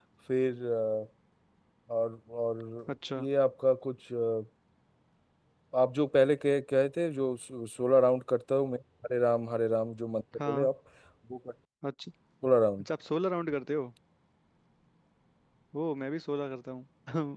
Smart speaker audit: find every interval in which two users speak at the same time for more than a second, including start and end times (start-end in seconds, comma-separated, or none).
none